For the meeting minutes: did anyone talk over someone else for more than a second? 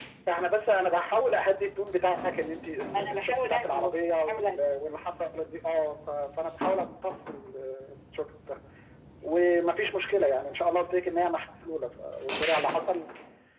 Yes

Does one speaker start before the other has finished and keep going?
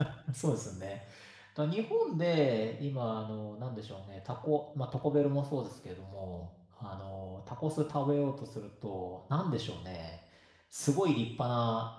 No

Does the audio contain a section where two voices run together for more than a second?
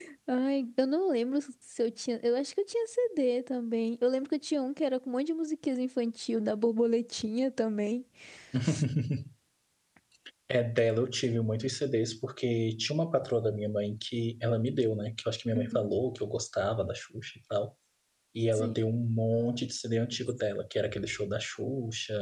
No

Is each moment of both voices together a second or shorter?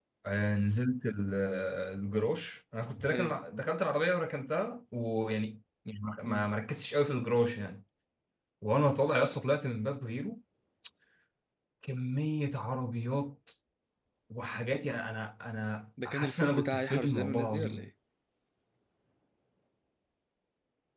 No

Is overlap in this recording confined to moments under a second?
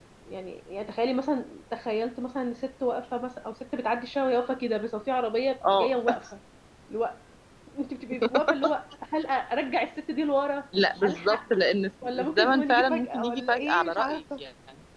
No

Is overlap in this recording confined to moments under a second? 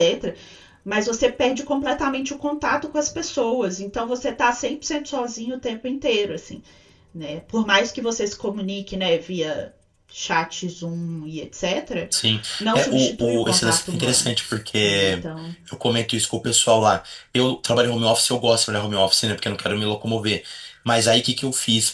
No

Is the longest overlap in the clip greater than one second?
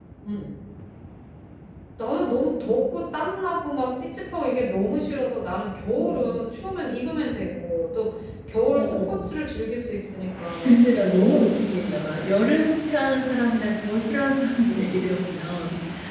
Yes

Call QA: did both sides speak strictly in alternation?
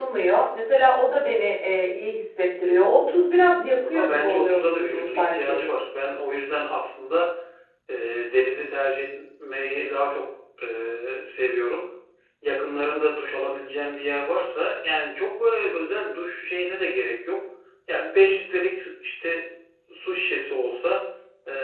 No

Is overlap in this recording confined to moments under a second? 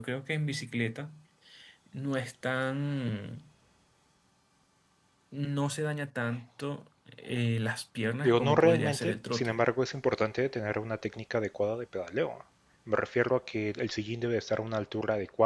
No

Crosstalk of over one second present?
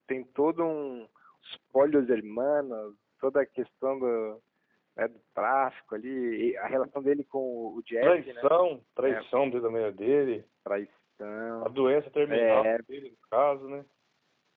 No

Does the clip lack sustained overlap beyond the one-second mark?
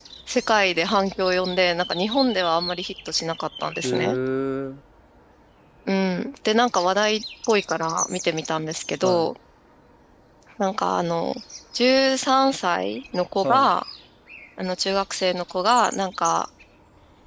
Yes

